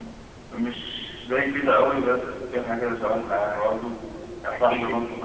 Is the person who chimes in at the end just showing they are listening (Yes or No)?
Yes